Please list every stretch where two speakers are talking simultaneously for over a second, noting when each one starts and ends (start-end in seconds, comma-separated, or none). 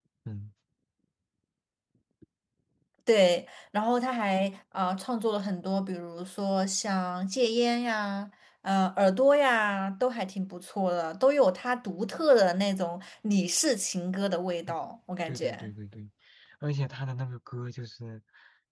none